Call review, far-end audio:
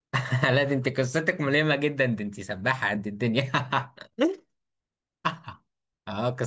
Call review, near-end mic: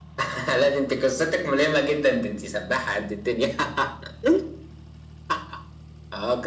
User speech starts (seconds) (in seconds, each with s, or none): none